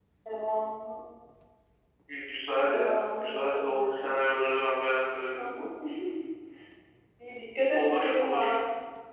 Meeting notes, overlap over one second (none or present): present